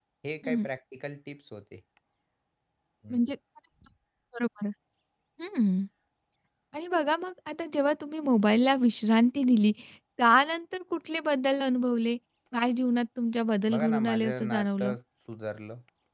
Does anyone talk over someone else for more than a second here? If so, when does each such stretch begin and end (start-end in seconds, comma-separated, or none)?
13.7-14.9